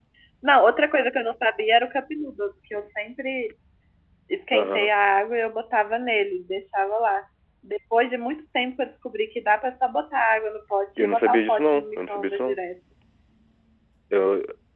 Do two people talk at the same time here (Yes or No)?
Yes